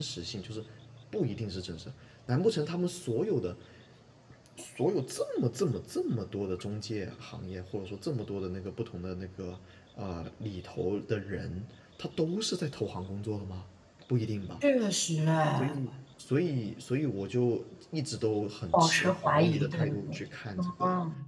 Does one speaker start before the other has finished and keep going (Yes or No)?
Yes